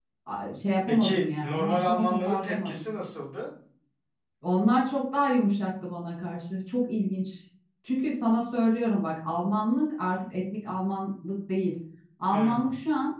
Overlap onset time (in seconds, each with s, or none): 0.9 s